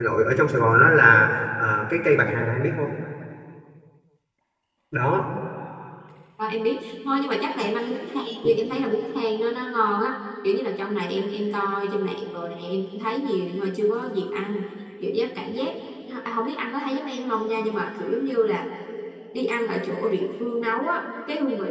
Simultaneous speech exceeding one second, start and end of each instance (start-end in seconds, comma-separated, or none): none